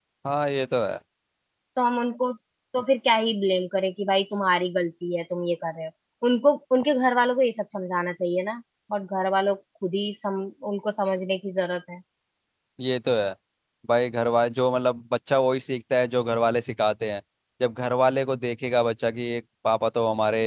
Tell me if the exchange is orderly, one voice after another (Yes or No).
Yes